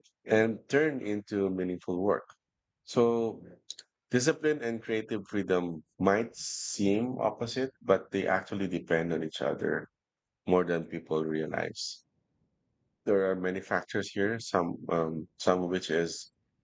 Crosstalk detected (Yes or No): No